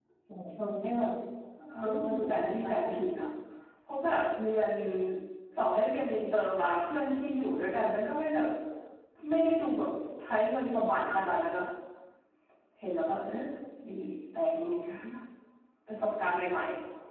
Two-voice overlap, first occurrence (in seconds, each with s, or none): 1.8 s